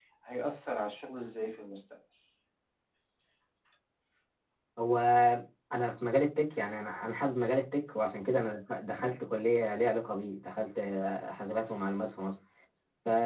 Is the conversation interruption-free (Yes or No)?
Yes